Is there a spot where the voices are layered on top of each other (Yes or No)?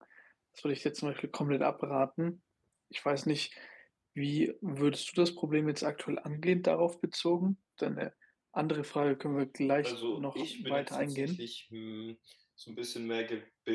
Yes